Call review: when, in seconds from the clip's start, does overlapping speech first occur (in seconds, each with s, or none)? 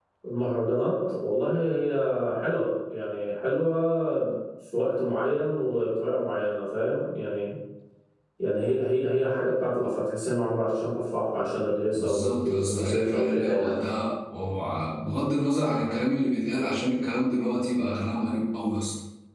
11.9 s